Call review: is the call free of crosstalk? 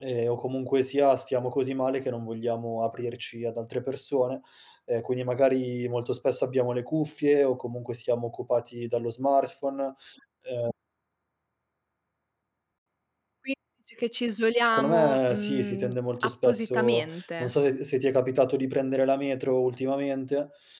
No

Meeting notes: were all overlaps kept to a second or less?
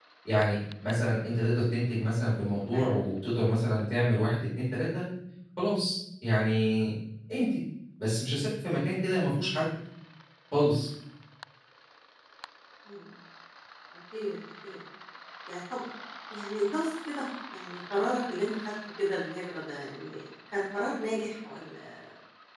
Yes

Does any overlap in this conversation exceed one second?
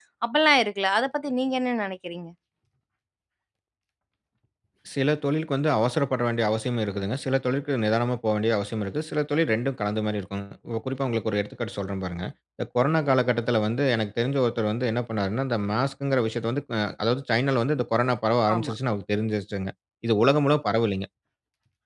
No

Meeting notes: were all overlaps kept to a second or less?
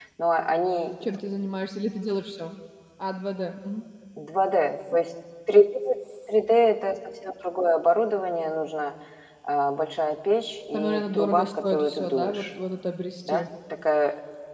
No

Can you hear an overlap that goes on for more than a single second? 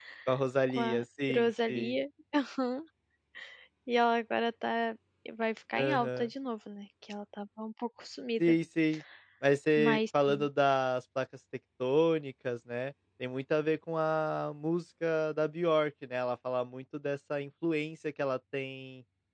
Yes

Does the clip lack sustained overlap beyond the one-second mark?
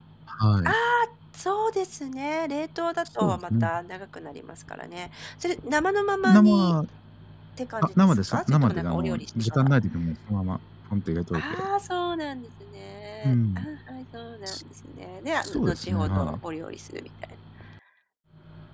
No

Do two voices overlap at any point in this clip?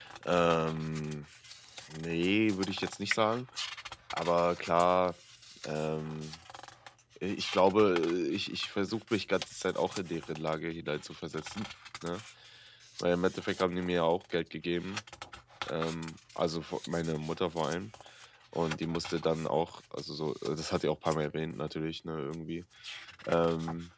No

